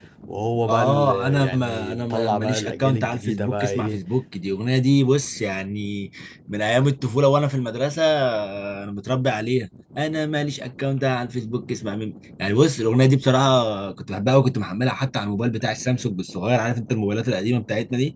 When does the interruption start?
0.7 s

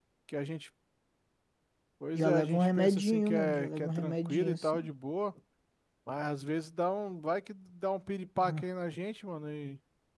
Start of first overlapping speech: 2.1 s

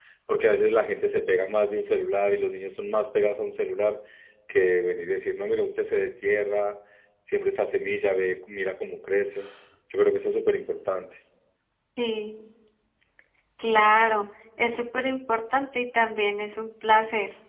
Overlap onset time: none

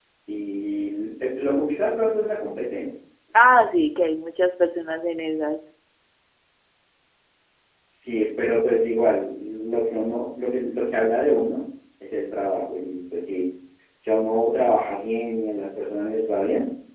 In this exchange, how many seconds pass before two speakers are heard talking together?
none

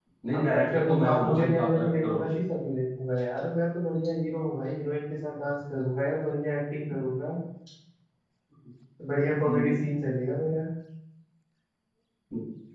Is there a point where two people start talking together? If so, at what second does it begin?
0.5 s

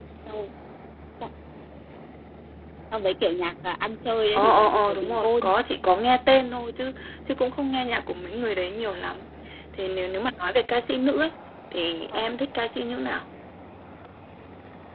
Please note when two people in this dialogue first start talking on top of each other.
4.3 s

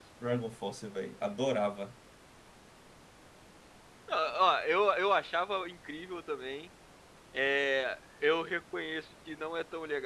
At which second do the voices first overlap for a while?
none

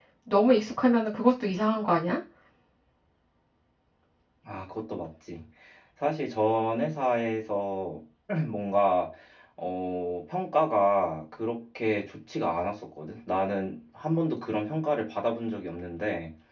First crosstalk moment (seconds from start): none

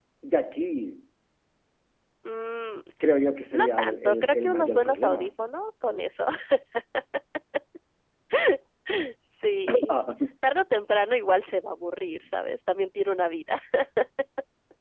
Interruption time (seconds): 3.5 s

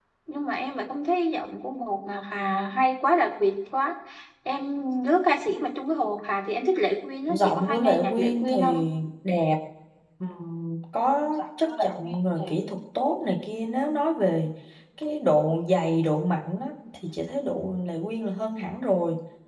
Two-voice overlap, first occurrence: 7.3 s

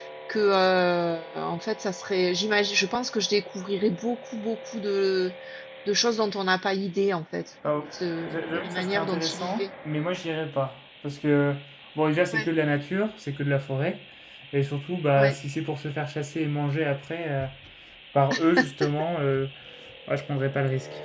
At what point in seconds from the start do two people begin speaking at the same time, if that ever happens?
8.2 s

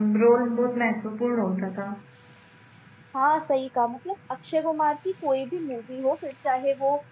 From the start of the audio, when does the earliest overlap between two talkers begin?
none

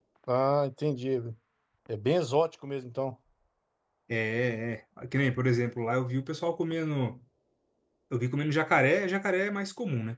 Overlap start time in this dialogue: none

